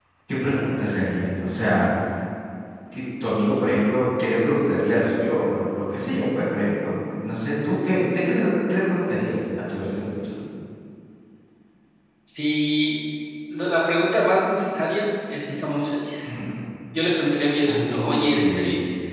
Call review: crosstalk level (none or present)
present